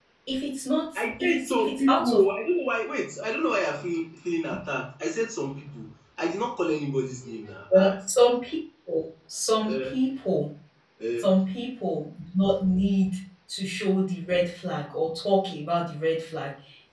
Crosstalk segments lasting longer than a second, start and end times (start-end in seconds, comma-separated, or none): 1.0-2.2